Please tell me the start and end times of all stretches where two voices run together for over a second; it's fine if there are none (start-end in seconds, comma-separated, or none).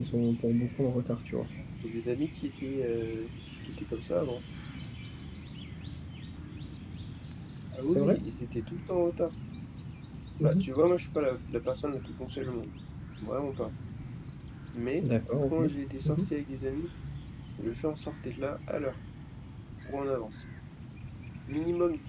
none